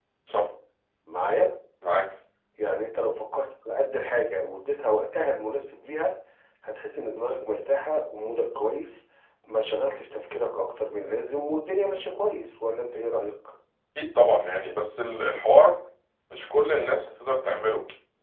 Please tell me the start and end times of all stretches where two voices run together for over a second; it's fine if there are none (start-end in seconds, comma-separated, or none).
none